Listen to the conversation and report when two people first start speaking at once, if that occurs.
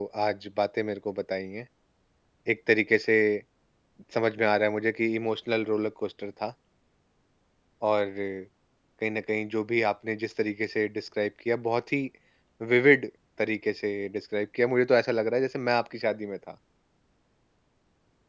none

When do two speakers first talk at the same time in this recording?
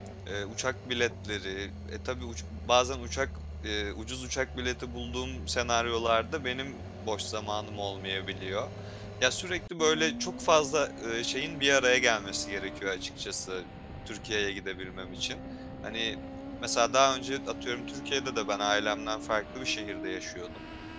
none

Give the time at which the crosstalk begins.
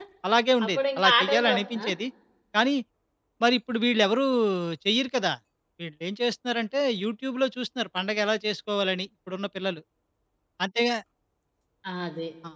0.7 s

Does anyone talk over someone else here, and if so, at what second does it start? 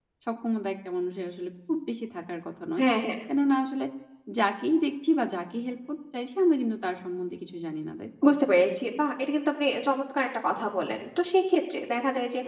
none

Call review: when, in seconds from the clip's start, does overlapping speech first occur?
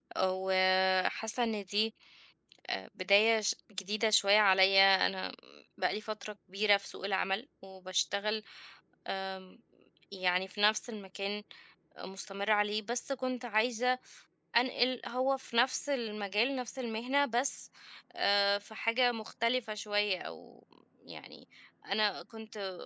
none

